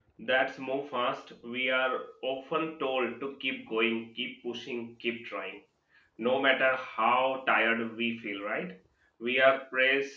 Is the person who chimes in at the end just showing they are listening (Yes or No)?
Yes